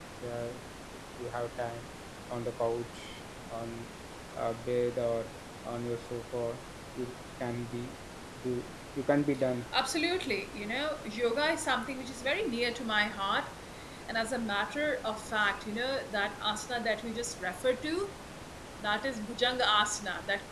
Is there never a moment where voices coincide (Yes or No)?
Yes